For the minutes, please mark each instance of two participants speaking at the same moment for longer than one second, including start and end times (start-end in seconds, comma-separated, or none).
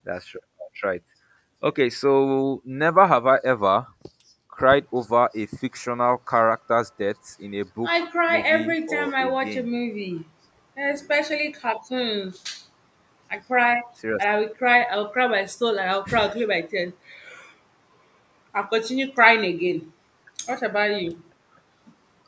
7.8-9.7